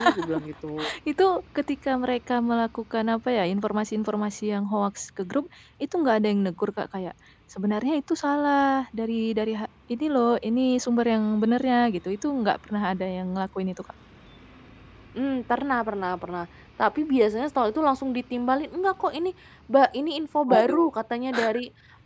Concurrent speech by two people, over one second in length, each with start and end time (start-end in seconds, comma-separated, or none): none